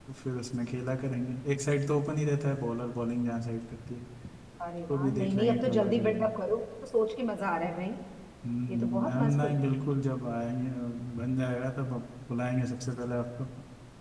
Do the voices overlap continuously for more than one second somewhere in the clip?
Yes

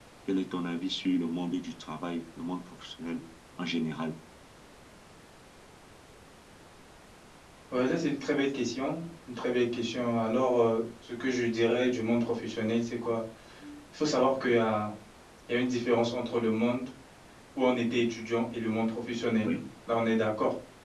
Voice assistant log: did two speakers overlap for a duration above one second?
No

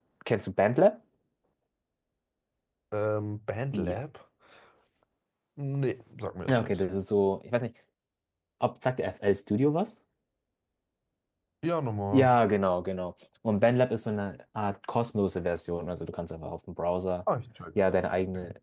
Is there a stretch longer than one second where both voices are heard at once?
No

